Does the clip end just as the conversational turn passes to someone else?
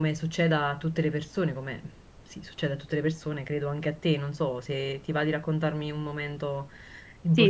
Yes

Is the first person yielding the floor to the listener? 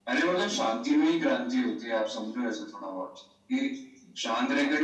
No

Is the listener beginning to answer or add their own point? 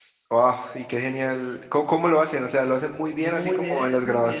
Yes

